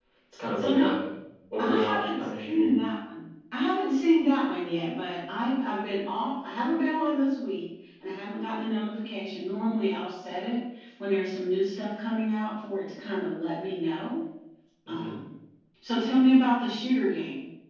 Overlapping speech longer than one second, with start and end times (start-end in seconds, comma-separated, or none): 1.6-2.8